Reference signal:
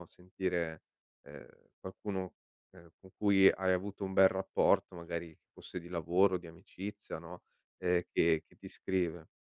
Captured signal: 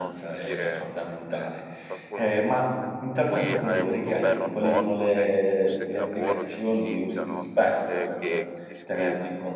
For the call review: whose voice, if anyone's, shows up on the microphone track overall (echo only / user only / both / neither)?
both